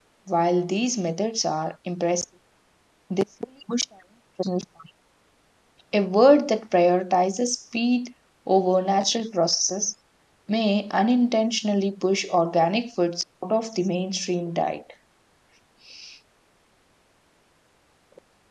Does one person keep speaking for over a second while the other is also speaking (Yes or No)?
No